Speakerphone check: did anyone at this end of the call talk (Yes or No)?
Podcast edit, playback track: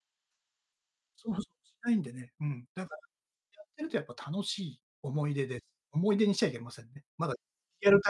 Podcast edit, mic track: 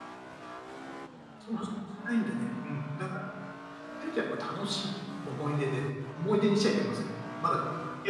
No